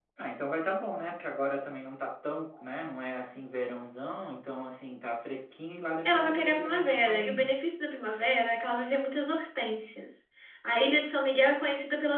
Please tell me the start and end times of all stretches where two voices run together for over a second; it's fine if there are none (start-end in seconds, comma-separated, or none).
6.0-7.5